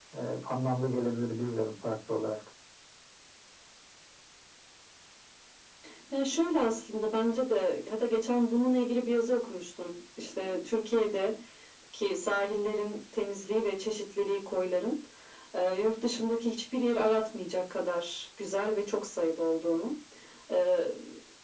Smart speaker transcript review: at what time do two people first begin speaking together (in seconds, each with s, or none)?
none